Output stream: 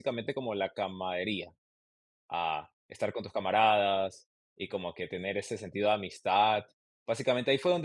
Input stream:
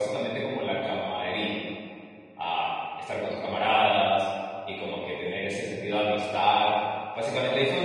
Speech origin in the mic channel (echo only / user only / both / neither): echo only